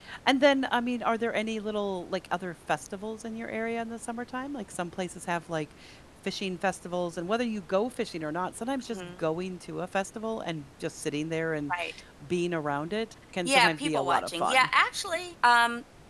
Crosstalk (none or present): present